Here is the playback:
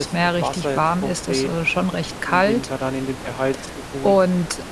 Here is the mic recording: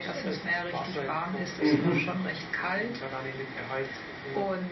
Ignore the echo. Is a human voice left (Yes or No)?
Yes